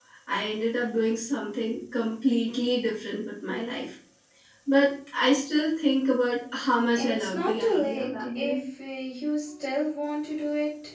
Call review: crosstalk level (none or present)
present